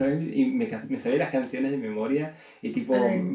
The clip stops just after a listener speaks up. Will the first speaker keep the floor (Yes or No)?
Yes